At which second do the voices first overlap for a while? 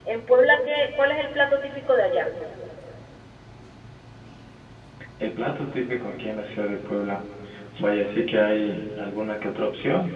none

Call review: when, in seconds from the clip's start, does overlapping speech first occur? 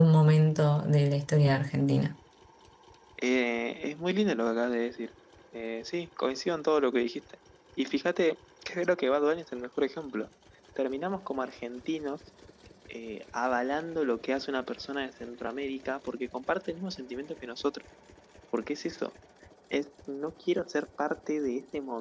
none

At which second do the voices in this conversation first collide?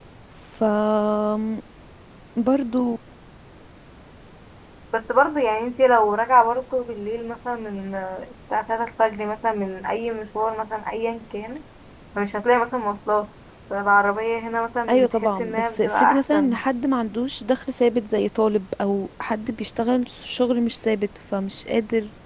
14.9 s

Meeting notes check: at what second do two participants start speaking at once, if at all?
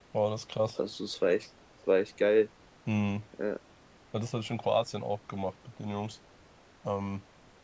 none

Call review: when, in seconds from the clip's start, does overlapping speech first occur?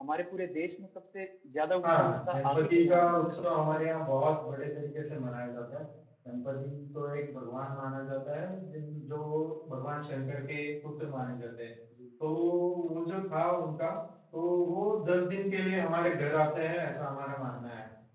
1.8 s

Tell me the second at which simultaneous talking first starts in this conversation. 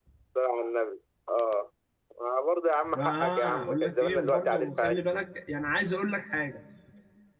2.9 s

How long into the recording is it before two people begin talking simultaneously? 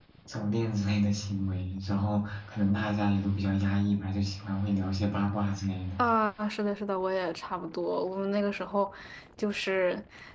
none

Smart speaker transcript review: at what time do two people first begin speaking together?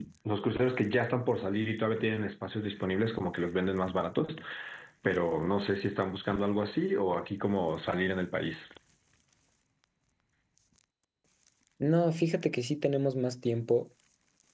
none

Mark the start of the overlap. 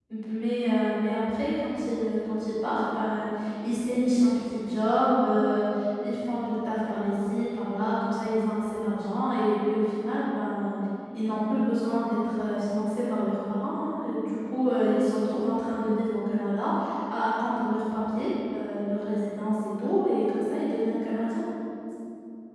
none

